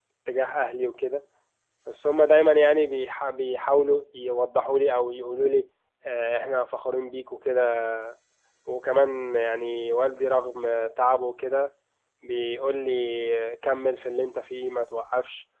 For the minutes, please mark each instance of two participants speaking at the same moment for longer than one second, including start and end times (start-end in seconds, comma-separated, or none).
none